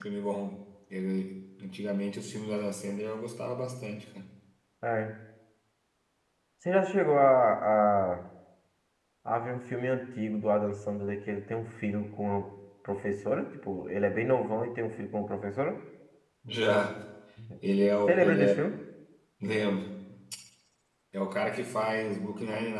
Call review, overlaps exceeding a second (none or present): none